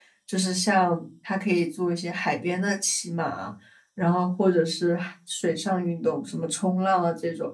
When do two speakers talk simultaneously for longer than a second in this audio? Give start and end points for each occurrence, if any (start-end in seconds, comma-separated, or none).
none